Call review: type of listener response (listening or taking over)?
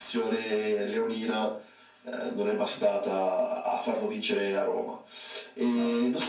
listening